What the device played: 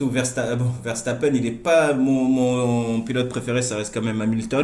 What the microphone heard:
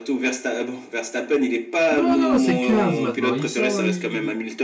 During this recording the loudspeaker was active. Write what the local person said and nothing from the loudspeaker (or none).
Non, non, non, c'est 15 maintenant. Ils, sont, ils,